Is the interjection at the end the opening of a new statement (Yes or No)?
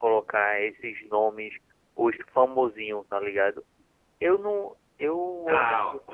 Yes